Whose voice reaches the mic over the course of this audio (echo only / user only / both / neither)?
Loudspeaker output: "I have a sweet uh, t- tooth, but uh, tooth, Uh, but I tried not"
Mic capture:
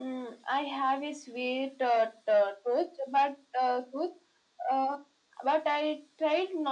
echo only